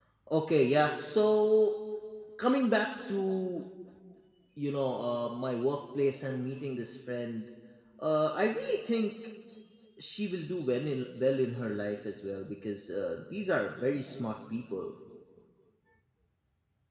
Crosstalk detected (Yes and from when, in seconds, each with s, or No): No